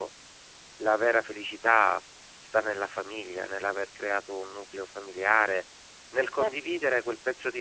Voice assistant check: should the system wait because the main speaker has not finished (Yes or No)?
Yes